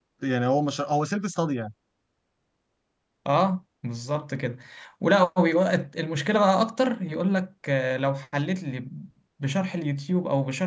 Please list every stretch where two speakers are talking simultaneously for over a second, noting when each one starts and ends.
none

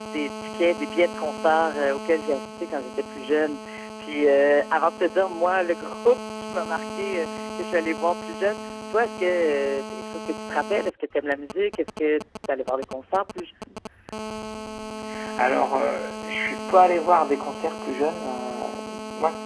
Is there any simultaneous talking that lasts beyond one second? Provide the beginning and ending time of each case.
none

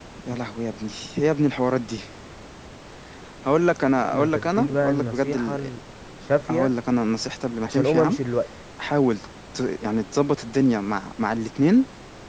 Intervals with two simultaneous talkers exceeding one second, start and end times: 4.0-5.6

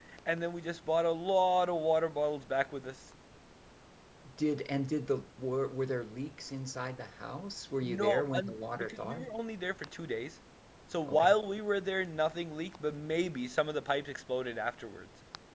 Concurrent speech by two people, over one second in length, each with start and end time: 7.8-9.3

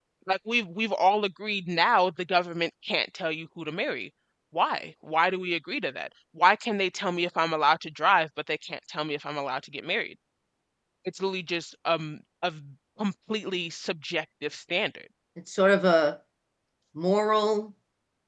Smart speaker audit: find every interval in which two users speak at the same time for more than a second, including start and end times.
none

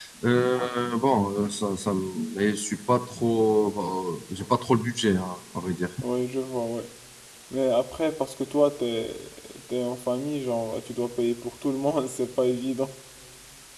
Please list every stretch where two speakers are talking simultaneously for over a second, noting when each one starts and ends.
none

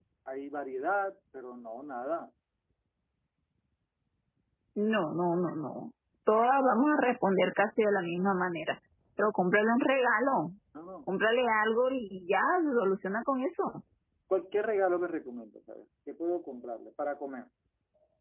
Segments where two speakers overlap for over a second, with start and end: none

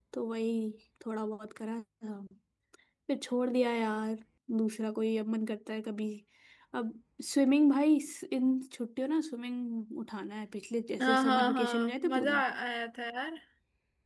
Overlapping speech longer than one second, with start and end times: 11.0-12.4

